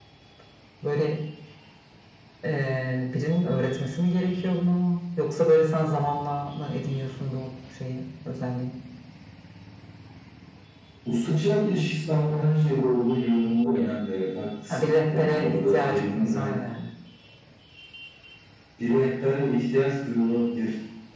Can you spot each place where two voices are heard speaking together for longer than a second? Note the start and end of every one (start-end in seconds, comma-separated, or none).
14.7-16.5